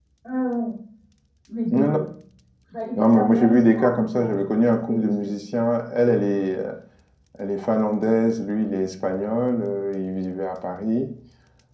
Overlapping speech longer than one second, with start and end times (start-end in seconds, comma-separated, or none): 3.0-4.3